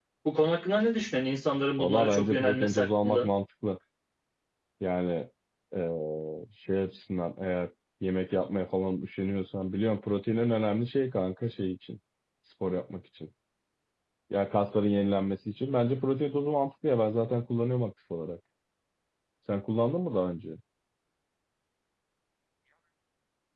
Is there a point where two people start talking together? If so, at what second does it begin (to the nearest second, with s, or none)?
2 s